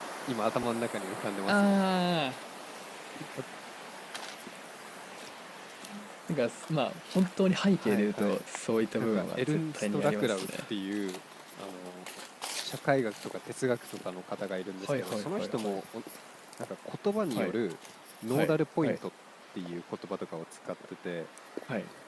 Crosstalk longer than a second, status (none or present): present